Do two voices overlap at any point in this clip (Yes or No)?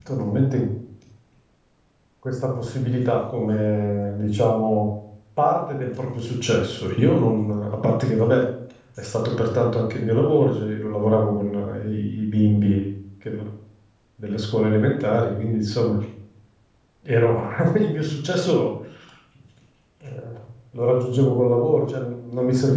No